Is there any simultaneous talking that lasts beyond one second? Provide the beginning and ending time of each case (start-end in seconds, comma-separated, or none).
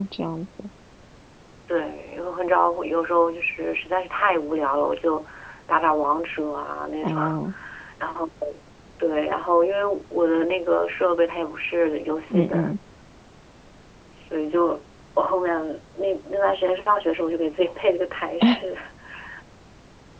none